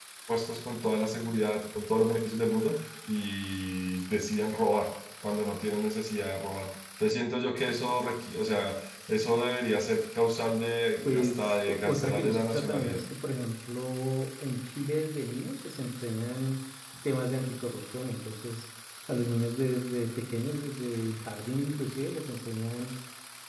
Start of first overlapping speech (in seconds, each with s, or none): 11.1 s